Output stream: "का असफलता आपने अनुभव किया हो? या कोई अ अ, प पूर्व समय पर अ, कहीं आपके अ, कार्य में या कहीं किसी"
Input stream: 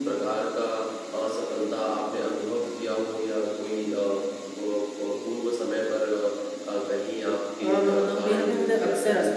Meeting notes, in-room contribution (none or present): present